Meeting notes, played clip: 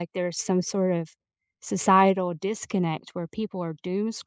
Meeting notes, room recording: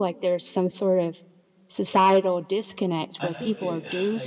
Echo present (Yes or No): Yes